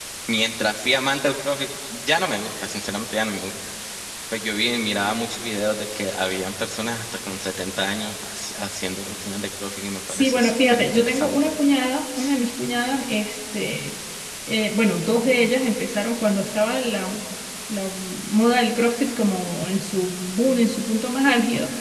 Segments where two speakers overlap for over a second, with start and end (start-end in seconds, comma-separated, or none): 10.1-11.4